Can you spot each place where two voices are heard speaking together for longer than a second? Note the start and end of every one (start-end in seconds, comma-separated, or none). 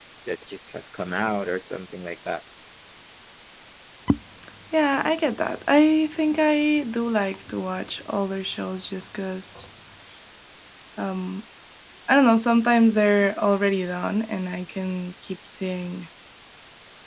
none